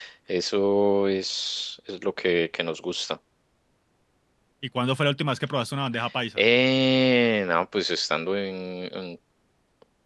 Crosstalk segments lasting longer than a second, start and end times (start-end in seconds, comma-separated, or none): none